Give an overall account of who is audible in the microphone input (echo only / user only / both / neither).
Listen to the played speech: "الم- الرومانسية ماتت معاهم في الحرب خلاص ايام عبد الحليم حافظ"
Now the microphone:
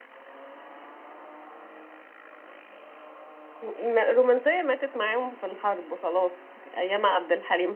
echo only